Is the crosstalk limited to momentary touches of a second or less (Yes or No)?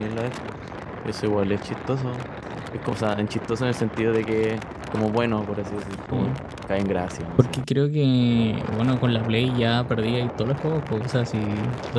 Yes